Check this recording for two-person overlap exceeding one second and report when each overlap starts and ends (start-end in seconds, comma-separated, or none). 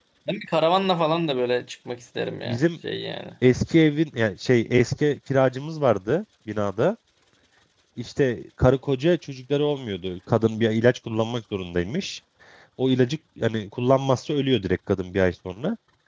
none